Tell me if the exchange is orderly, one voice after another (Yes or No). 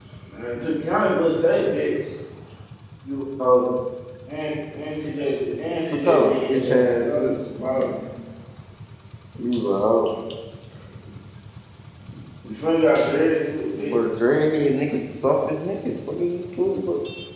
No